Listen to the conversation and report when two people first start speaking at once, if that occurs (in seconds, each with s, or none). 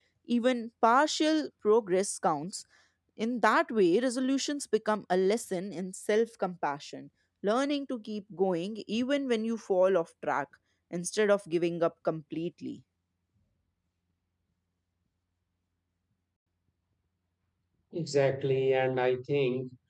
none